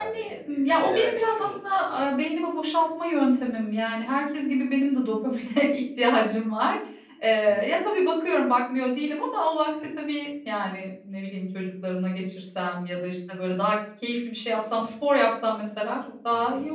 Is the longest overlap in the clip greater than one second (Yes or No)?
Yes